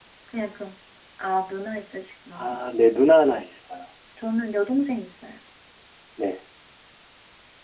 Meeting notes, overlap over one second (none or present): none